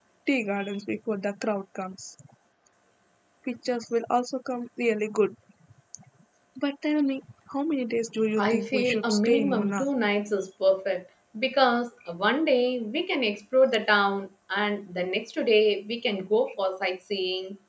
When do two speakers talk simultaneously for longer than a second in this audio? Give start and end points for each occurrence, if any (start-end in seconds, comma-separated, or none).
8.4-9.8